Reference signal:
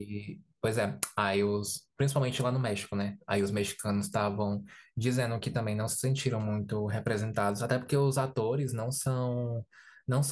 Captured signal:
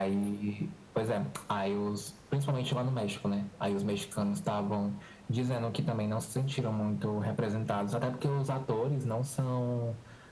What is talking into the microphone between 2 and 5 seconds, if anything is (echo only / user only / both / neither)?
echo only